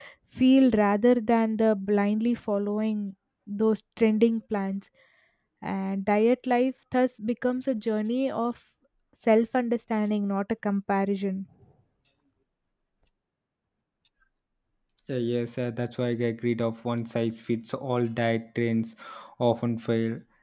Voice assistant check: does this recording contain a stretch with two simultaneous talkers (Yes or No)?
No